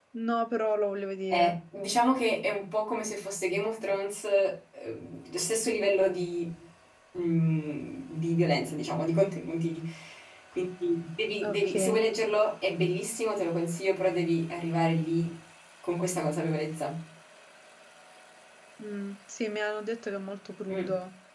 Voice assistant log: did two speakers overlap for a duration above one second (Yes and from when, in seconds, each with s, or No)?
No